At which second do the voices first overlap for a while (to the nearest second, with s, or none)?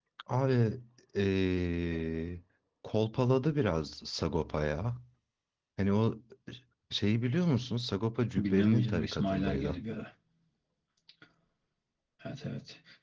8 s